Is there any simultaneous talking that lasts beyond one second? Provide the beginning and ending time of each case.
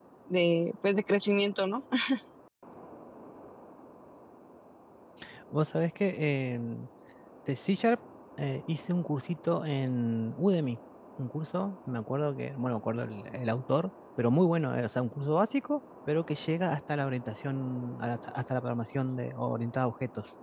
none

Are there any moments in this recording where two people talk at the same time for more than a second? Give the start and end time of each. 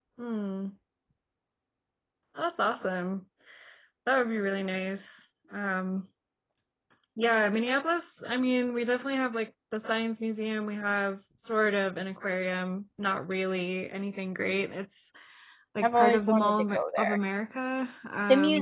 15.8-17.2

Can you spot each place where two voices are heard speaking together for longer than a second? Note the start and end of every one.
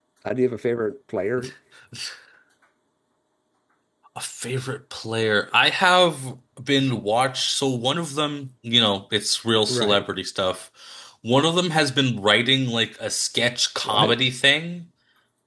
none

